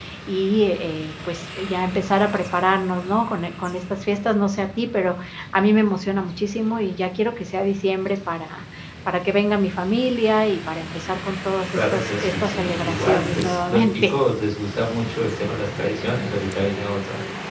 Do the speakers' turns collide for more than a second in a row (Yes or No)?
Yes